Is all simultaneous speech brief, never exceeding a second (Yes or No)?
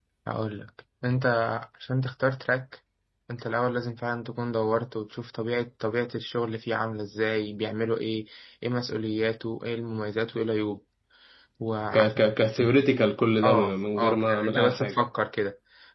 No